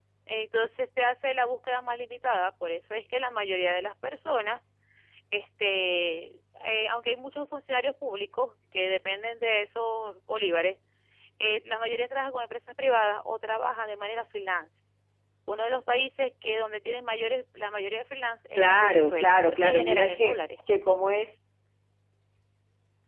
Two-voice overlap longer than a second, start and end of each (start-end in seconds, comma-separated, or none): 18.6-20.4